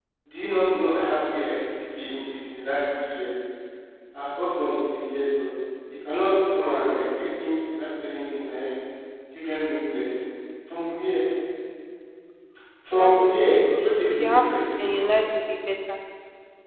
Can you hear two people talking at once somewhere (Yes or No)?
Yes